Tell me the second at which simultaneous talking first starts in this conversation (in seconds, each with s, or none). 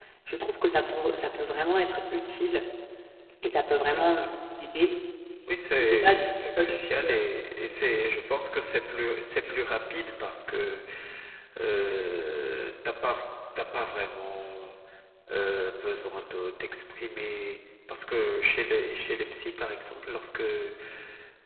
5.8 s